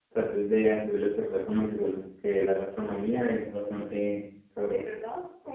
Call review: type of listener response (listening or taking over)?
taking over